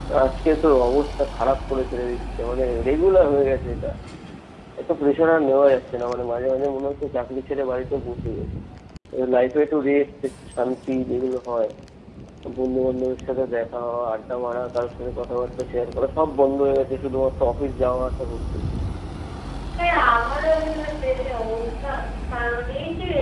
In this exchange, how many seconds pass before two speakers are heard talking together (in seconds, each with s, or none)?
none